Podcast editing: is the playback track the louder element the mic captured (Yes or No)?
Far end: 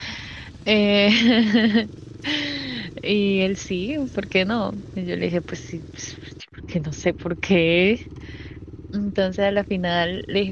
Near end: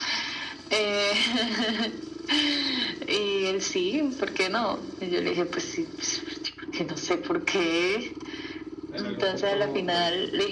Yes